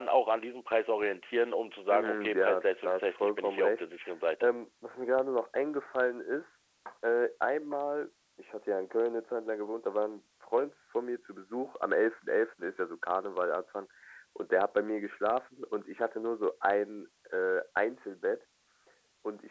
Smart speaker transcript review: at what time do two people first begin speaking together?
2 s

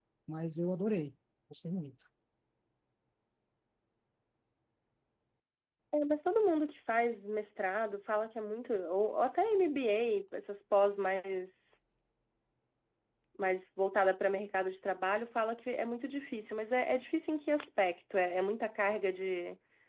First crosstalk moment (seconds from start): none

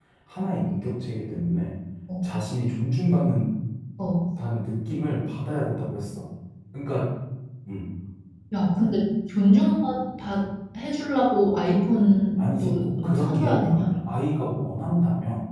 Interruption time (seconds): 12 s

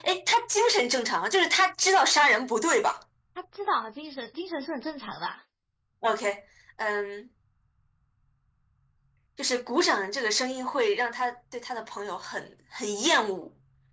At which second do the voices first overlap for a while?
none

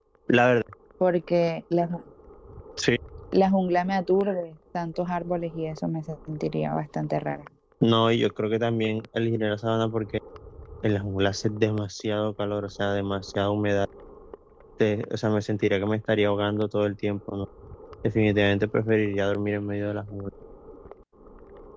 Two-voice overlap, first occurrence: none

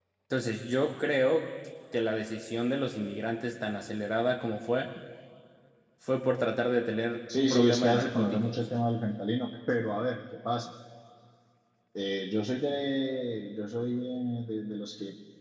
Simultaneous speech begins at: 7 s

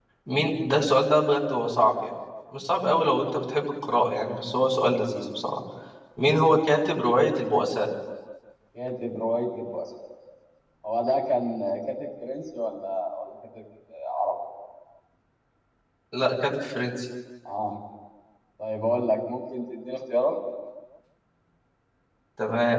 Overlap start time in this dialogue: none

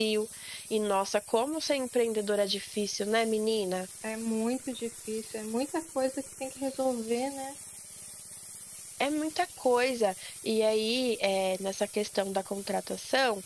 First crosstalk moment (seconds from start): none

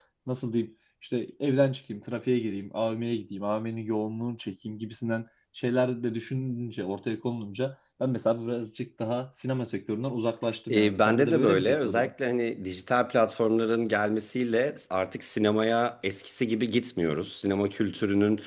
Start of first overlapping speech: 11 s

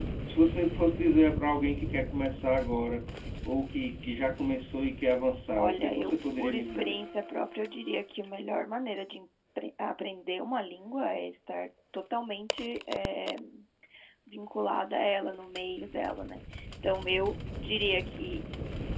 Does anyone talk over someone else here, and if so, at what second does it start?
6 s

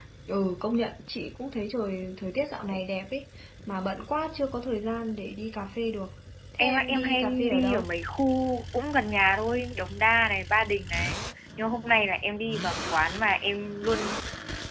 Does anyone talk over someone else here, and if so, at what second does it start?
7 s

